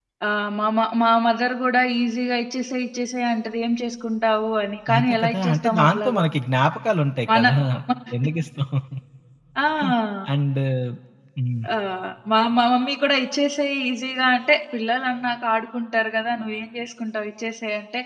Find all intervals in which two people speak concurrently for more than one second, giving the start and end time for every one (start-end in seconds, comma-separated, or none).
5.0-6.2